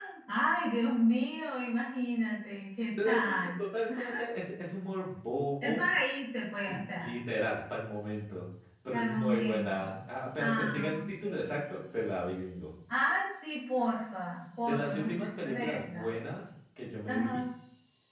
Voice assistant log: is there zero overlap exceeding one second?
No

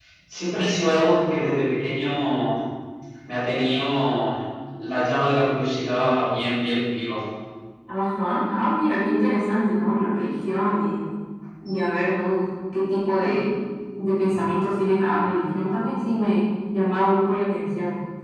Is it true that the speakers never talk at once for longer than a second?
Yes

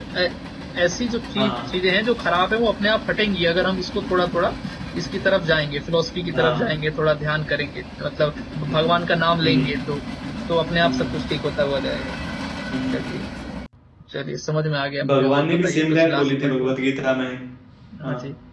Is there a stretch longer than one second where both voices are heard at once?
Yes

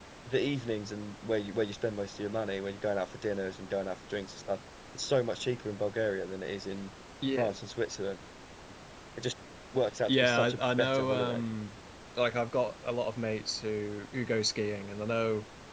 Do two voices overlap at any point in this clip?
Yes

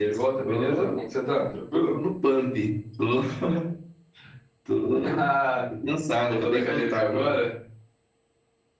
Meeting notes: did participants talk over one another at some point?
Yes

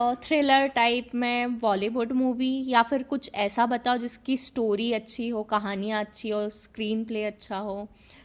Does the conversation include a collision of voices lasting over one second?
No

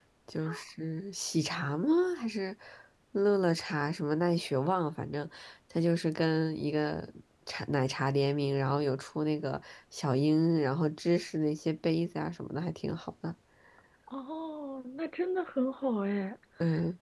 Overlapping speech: No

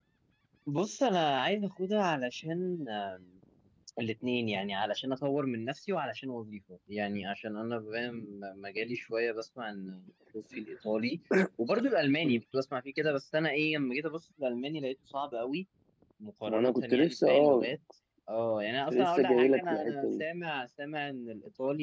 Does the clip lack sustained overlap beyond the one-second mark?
No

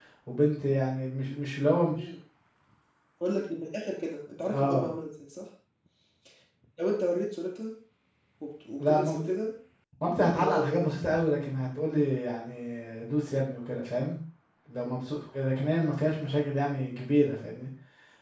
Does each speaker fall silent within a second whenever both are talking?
Yes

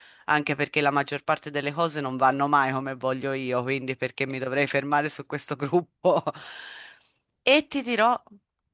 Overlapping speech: No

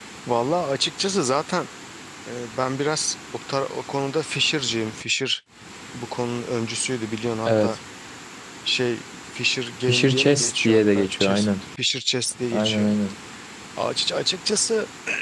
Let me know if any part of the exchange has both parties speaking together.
Yes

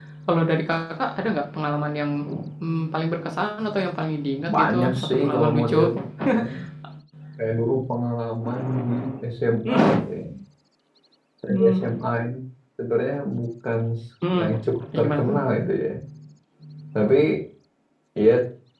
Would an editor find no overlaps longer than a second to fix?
No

